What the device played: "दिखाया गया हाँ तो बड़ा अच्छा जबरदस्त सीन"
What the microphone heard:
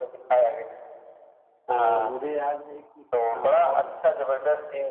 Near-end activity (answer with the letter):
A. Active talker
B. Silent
A